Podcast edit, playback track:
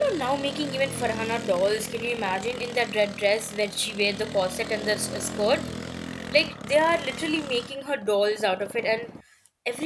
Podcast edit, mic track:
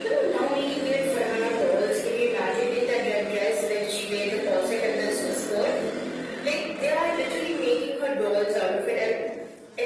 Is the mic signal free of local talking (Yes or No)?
Yes